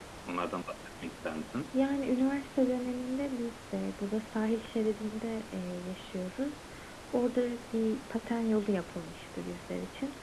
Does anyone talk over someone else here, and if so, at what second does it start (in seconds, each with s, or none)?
none